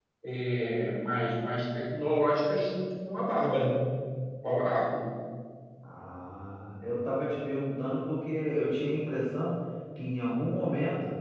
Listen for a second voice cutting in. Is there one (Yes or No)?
No